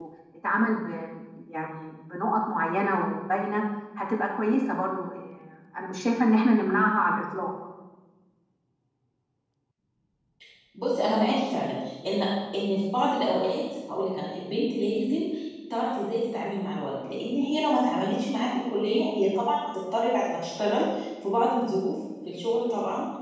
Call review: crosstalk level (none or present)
none